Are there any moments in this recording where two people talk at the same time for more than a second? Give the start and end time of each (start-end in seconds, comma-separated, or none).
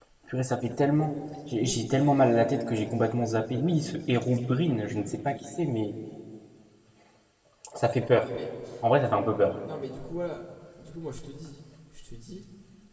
none